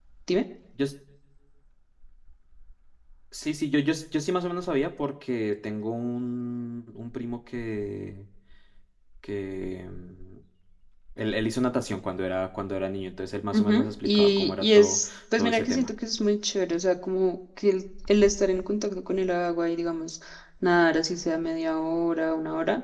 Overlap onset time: 13.5 s

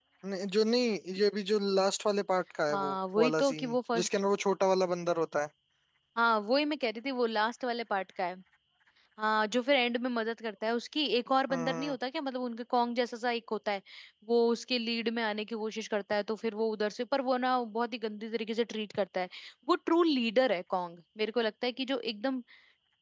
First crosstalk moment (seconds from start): 2.7 s

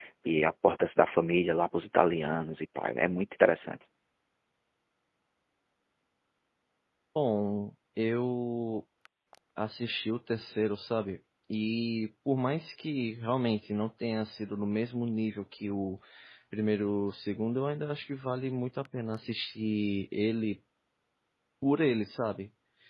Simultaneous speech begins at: none

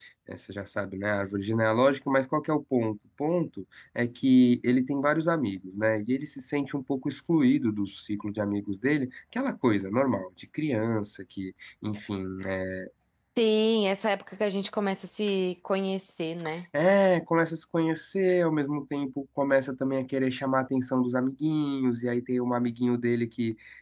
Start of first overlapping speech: none

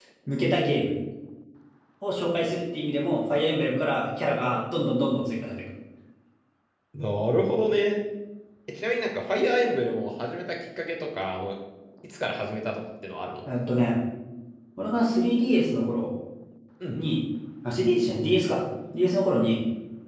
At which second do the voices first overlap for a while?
none

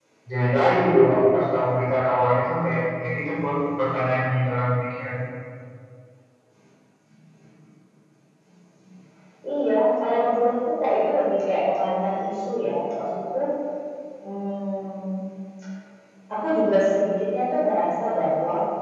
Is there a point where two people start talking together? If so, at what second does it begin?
none

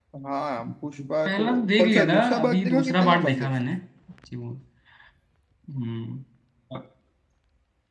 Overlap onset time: 1.2 s

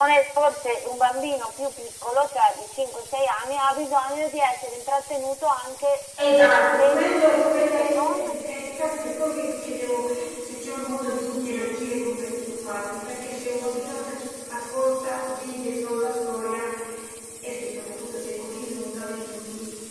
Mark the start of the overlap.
6.2 s

